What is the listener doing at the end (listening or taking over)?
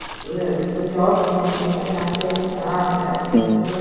listening